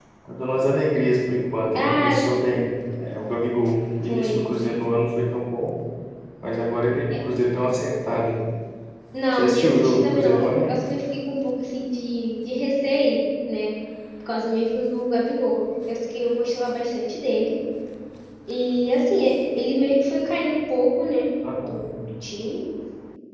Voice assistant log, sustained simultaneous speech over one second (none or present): present